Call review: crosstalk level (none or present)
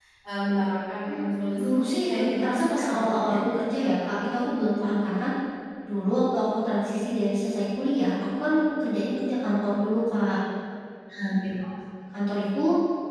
present